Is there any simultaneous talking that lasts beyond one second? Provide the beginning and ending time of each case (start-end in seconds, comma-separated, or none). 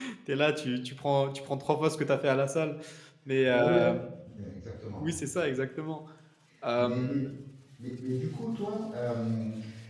none